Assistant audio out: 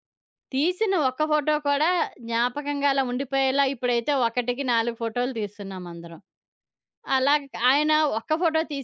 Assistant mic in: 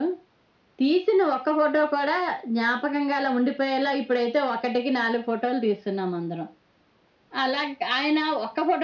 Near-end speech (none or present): none